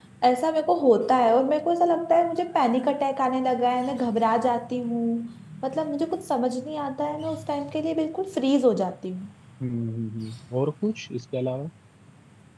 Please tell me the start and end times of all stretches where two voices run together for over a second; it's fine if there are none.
none

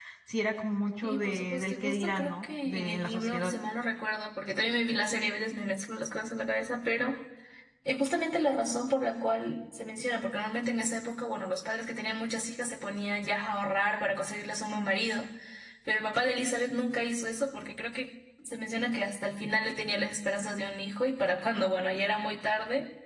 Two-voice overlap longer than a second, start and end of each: 1.0-3.5

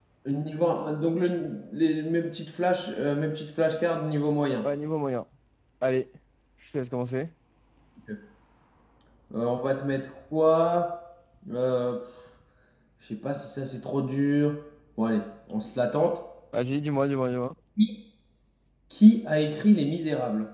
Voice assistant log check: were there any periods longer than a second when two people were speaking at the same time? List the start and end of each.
none

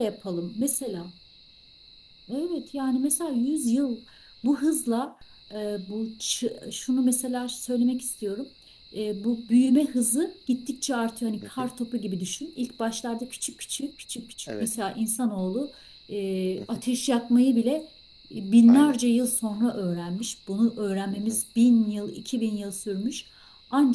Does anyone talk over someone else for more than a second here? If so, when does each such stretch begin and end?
none

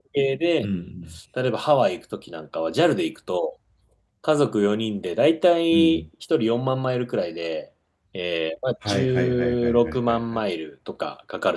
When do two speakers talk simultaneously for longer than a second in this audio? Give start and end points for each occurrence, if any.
8.9-10.4

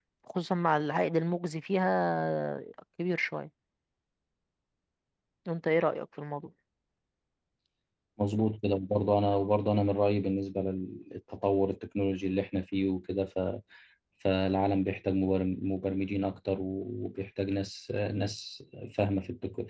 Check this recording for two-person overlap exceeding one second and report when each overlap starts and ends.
none

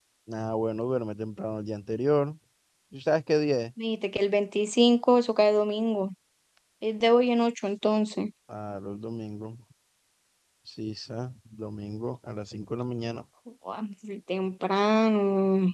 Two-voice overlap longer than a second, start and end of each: none

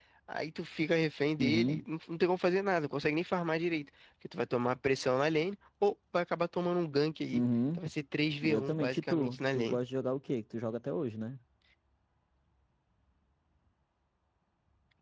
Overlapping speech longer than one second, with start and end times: 8.4-9.8

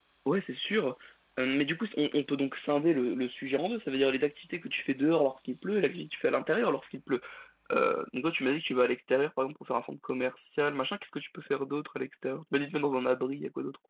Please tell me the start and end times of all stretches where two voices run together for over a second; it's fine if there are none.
none

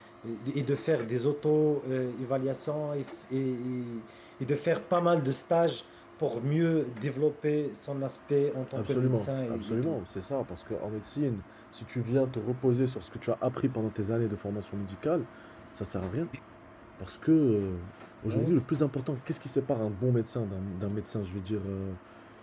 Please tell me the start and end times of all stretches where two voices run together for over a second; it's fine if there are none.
8.8-10.0

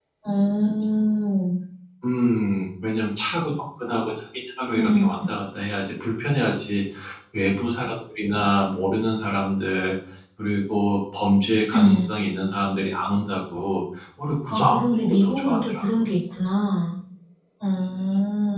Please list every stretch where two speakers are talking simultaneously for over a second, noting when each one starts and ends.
14.5-15.8

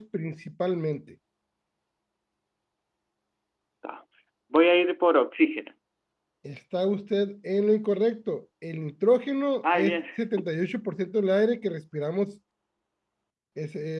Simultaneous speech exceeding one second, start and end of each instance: none

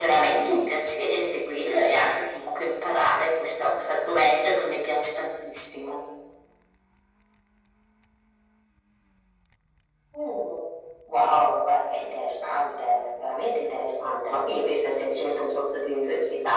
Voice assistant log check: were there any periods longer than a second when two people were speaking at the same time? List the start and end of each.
none

